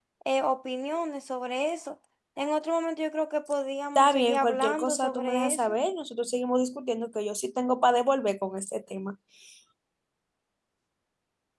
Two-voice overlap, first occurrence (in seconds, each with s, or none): 4.0 s